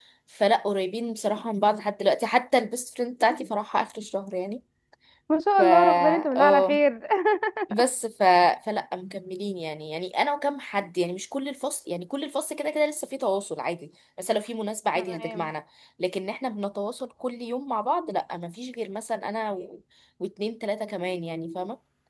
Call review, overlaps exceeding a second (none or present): present